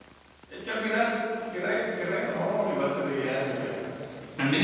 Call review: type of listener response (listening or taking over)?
taking over